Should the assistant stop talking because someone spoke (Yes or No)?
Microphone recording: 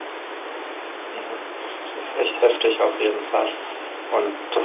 Yes